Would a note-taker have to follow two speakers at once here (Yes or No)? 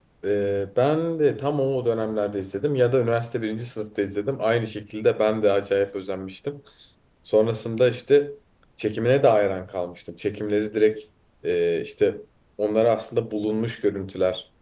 No